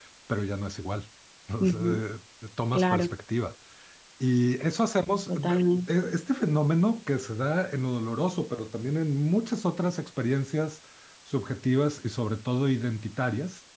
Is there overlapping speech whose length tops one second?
No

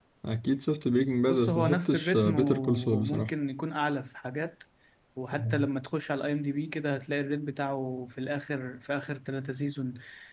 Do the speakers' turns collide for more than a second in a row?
Yes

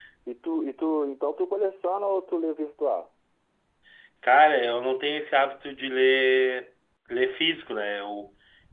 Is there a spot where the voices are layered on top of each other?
No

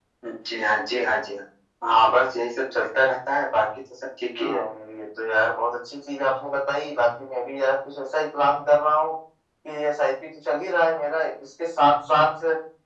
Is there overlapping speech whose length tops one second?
No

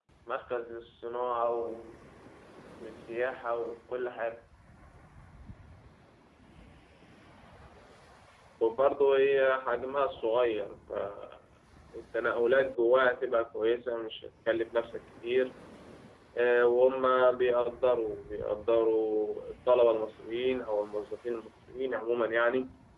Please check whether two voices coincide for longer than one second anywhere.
No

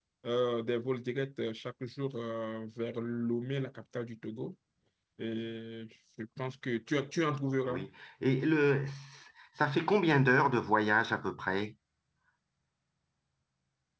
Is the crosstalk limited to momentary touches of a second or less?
Yes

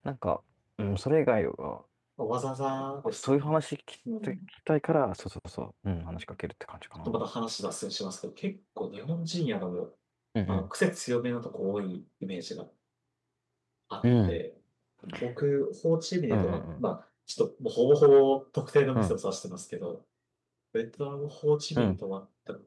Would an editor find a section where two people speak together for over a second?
No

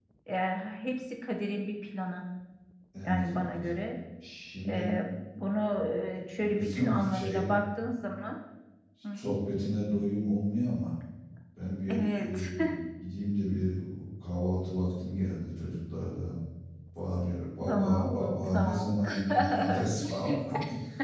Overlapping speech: Yes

